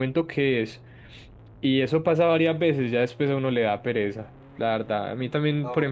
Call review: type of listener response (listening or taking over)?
taking over